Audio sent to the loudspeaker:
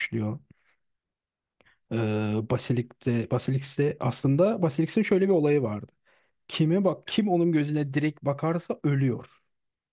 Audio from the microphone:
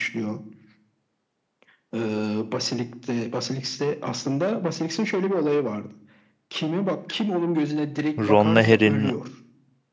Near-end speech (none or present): present